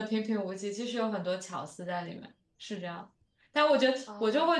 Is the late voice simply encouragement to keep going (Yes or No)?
Yes